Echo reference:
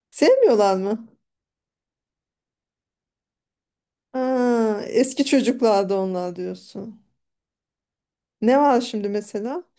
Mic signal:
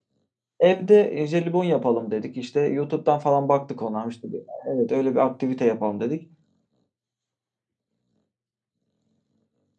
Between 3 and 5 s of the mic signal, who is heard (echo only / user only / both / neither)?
user only